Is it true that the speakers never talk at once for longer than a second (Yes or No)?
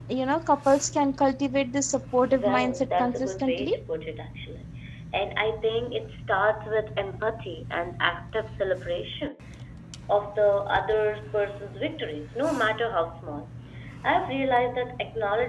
No